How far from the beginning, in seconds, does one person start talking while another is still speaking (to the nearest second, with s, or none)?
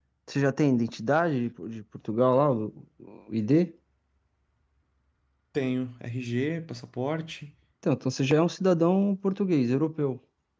none